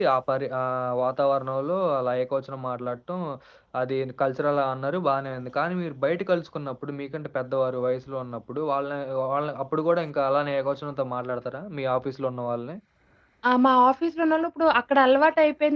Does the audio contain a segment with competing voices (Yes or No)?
No